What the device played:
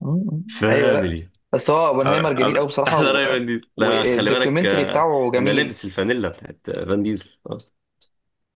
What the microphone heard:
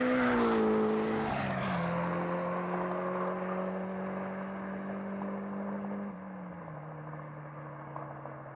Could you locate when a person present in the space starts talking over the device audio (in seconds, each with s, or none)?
none